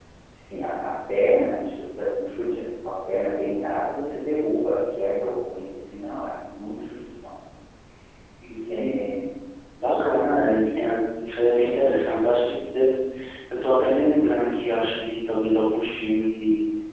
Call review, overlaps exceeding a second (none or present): none